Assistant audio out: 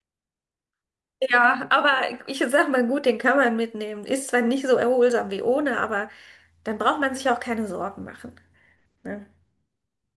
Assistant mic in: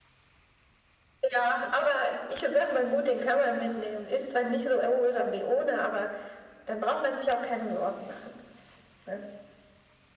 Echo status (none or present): present